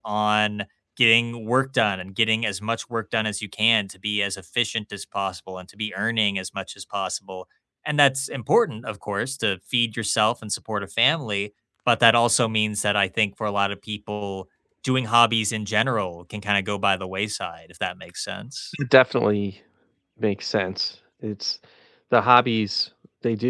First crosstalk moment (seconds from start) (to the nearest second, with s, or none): none